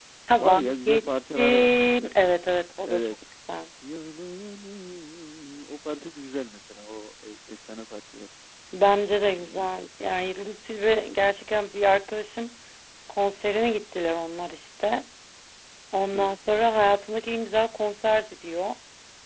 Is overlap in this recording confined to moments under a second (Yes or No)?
No